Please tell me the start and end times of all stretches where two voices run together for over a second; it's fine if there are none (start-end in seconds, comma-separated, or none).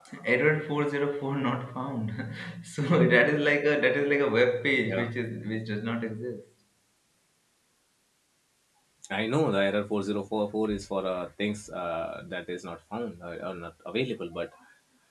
none